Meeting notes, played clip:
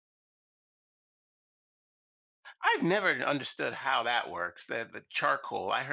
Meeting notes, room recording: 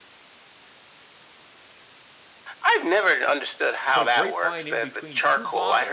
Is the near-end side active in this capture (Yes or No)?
Yes